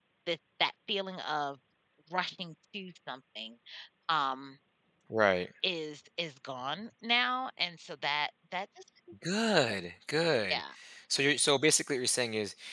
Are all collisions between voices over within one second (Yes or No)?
Yes